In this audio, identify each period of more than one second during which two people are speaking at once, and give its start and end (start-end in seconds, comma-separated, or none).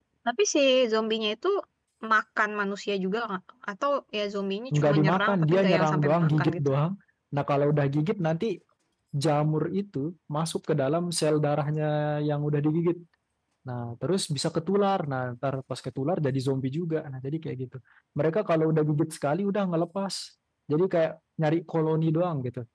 4.7-6.7